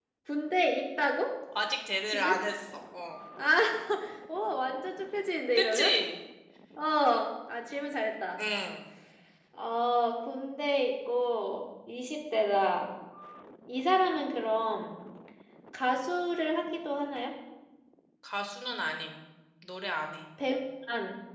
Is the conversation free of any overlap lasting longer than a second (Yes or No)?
Yes